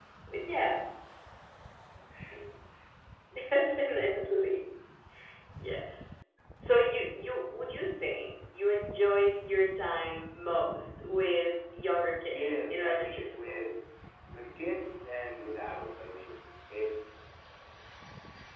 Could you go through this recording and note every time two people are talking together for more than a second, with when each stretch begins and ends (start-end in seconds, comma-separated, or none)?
12.3-13.6